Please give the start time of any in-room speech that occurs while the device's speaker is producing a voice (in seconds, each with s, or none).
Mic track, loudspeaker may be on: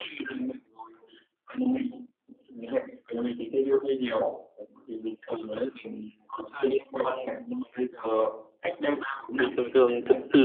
9.3 s